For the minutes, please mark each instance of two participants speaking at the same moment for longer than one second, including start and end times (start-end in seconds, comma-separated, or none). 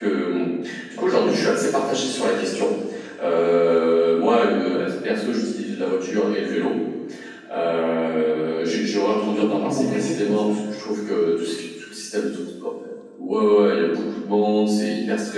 9.3-10.5